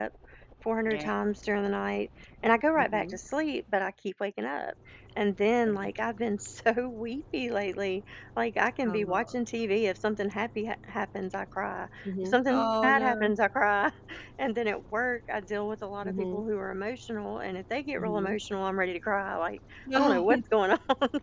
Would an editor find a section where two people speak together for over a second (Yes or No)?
Yes